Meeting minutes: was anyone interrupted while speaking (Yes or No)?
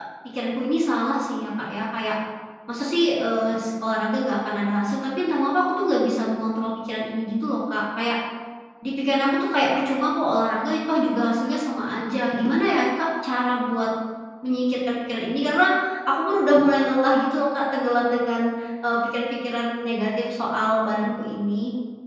No